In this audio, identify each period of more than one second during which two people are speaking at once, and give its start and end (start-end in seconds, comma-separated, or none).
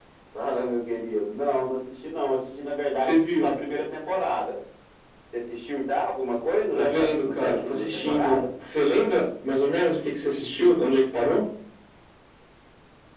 6.8-8.4